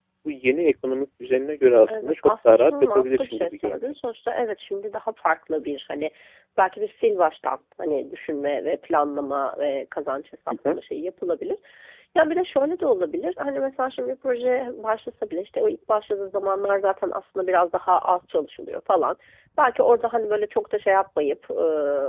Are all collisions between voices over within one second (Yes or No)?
No